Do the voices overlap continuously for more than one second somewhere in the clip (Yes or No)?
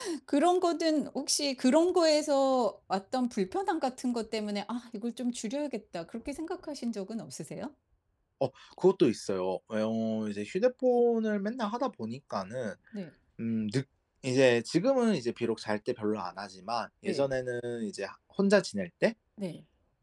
No